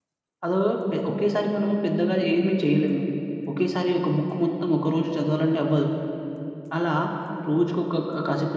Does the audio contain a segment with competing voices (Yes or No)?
No